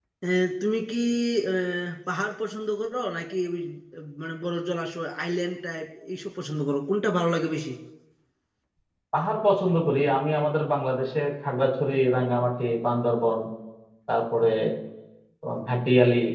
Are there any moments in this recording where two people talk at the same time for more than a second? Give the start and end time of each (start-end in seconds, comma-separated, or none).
none